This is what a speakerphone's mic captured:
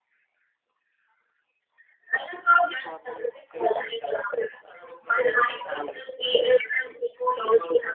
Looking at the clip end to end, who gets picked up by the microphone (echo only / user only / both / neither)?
both